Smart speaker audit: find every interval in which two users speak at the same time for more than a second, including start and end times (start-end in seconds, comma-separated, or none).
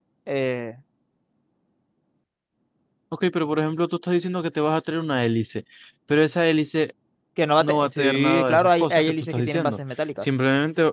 7.6-9.8